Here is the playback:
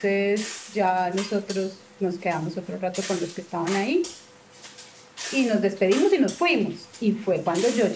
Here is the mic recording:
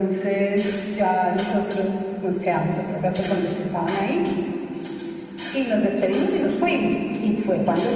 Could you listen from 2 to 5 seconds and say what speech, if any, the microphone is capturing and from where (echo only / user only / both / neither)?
echo only